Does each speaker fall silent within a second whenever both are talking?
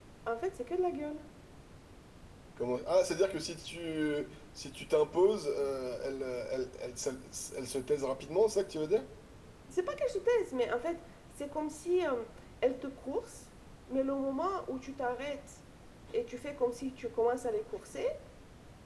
Yes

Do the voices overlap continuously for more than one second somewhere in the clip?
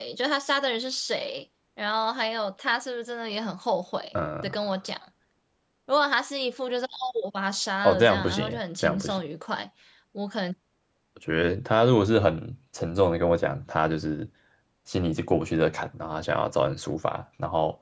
Yes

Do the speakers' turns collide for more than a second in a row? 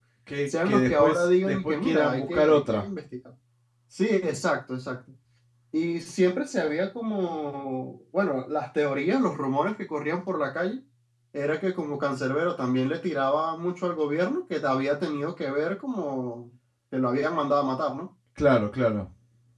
Yes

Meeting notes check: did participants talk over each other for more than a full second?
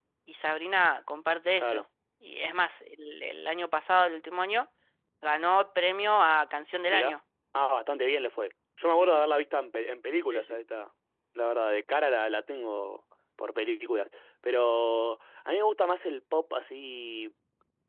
No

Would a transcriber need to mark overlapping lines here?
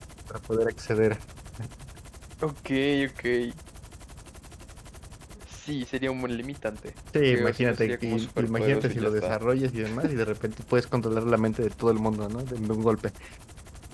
Yes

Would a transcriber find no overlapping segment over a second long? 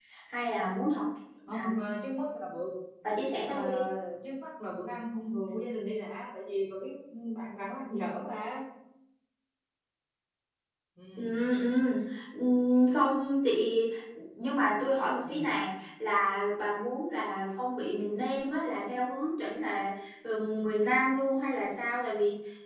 Yes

